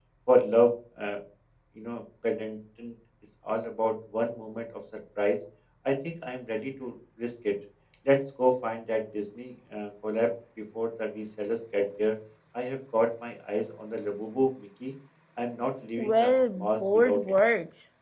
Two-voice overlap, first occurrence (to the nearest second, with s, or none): 16 s